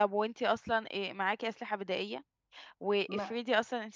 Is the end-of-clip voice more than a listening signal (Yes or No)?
No